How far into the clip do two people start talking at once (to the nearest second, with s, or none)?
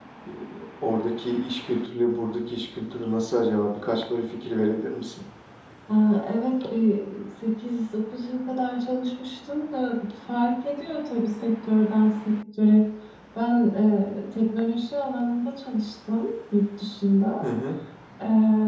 none